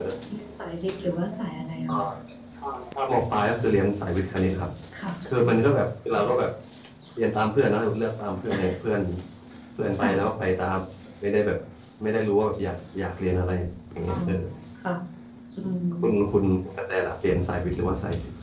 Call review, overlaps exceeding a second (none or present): none